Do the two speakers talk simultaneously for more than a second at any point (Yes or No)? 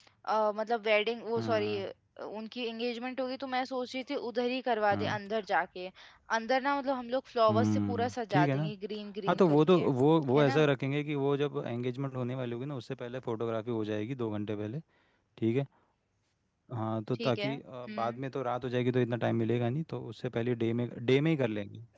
Yes